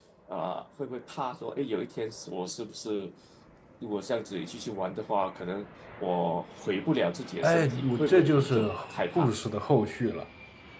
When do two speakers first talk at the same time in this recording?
7.4 s

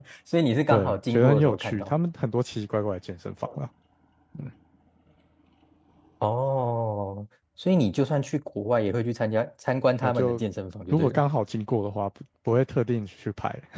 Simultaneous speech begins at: 0.7 s

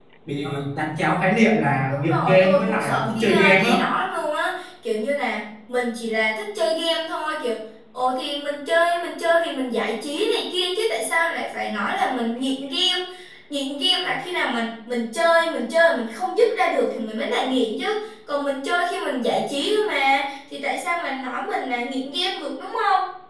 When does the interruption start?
1.9 s

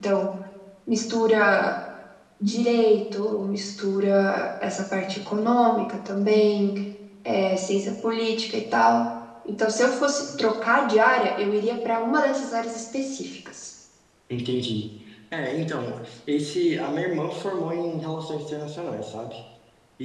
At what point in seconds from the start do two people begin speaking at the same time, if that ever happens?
none

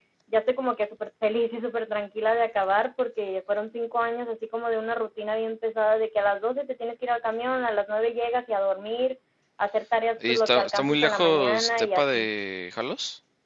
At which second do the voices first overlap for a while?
10.3 s

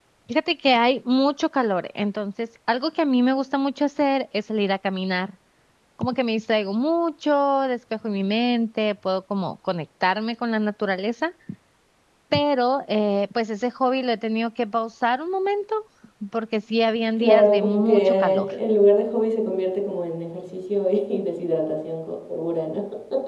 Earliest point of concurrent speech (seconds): 17.2 s

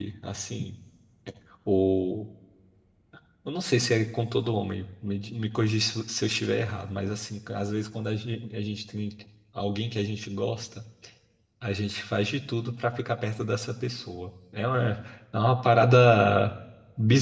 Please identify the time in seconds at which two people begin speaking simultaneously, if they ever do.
none

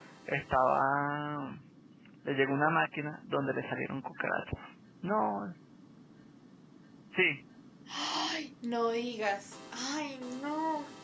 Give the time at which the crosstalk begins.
none

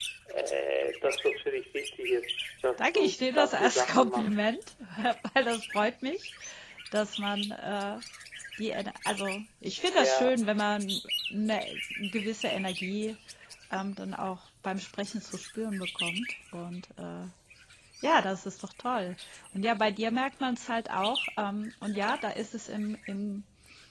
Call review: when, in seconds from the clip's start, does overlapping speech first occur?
2.8 s

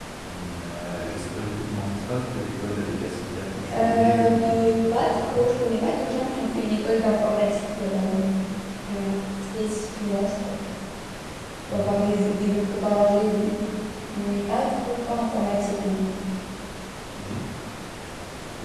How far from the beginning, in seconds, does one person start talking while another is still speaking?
3.7 s

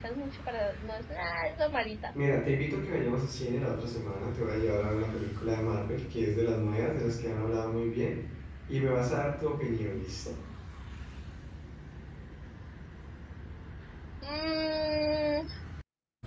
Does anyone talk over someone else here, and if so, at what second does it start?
none

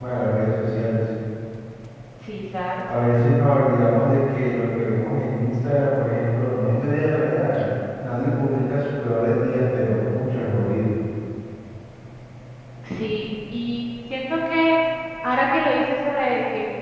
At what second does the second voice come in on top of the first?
none

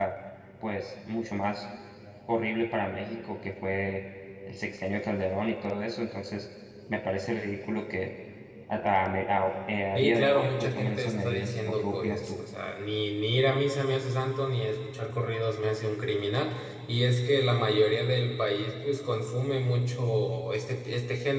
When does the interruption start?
10.0 s

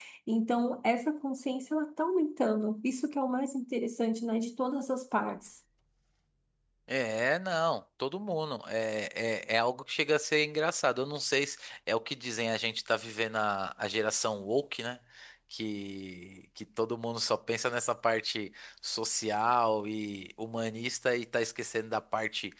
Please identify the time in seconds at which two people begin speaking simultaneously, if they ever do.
none

